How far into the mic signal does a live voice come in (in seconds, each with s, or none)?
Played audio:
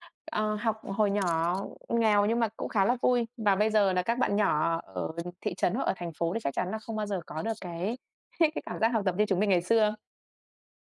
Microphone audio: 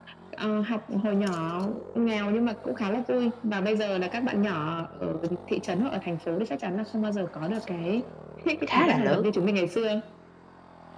8.6 s